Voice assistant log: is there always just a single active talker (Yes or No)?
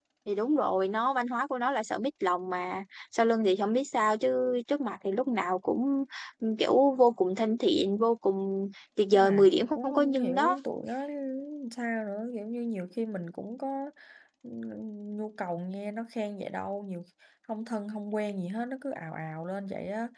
No